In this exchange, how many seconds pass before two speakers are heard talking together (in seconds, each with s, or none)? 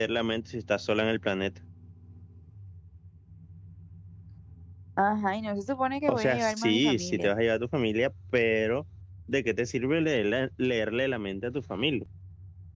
6.1 s